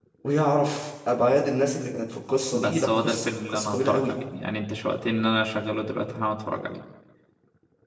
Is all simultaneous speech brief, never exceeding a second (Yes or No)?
No